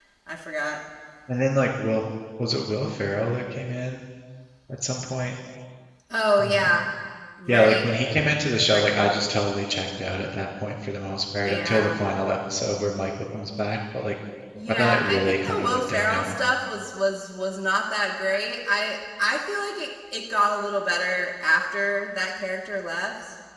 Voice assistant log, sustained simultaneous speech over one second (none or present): present